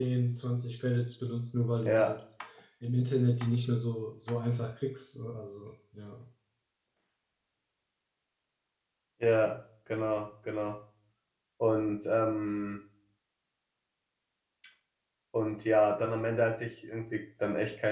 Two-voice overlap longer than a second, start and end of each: none

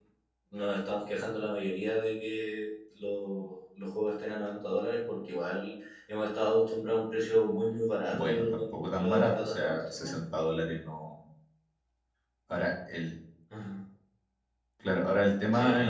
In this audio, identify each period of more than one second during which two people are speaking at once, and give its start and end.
8.1-10.1

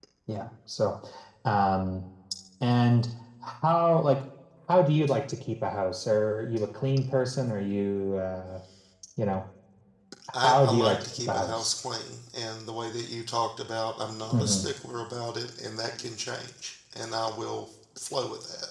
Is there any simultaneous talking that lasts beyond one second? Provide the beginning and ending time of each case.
10.4-11.7

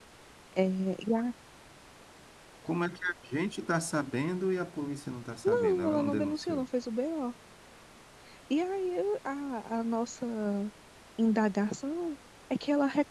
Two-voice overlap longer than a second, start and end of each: 5.4-6.7

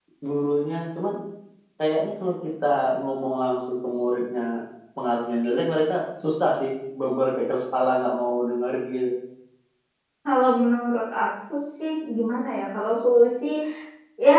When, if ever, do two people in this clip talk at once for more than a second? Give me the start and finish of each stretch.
none

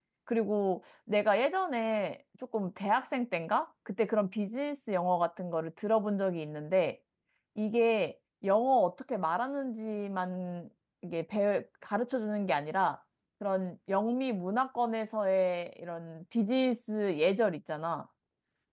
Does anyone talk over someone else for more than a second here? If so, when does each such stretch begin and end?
none

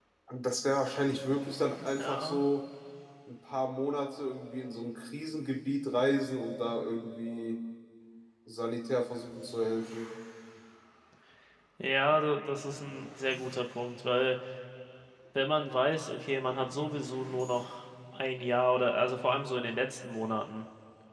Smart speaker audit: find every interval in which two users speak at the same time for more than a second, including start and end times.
none

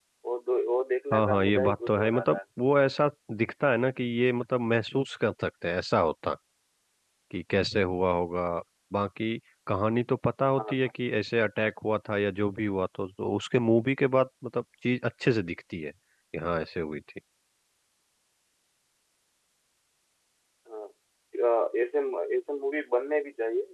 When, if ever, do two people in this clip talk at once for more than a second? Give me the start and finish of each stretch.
1.1-2.4

